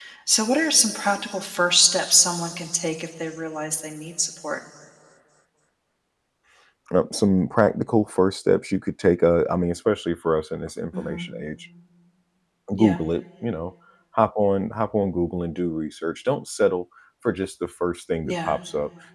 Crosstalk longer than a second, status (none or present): none